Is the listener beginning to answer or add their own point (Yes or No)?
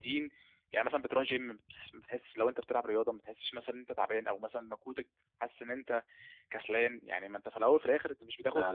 No